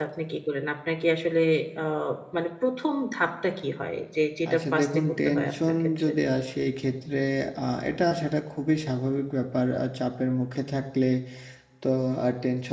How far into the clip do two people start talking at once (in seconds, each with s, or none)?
4.5 s